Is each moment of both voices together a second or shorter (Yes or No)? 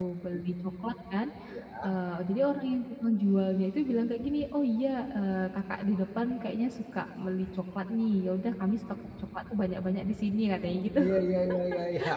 Yes